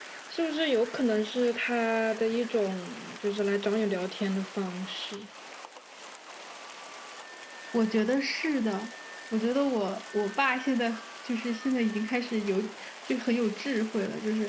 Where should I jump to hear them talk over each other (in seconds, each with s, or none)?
none